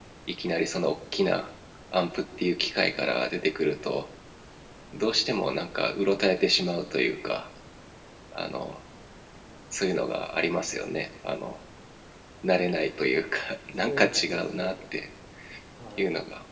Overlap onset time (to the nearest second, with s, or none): 14 s